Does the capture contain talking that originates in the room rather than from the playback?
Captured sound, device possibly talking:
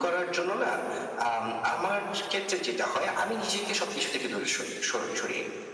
No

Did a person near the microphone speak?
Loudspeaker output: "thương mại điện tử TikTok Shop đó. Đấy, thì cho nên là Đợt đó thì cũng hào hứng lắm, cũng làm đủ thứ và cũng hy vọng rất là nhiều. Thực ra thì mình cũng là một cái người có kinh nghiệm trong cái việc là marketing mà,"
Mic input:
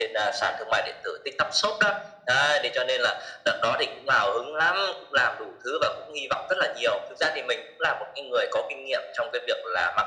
No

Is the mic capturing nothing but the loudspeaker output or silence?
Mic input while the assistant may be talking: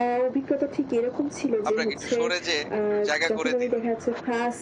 No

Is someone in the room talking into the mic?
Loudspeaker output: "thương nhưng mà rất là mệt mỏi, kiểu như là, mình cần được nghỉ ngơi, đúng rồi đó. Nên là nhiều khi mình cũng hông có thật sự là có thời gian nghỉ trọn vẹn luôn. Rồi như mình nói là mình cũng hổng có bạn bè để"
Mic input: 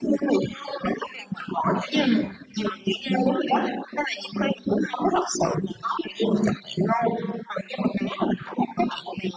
Yes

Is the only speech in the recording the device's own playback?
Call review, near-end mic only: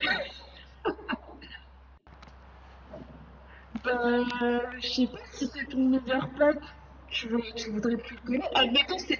Yes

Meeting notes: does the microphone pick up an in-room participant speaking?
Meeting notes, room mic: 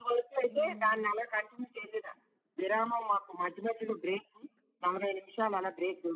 Yes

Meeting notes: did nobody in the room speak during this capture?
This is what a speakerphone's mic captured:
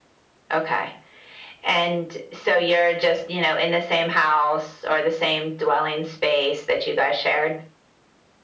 Yes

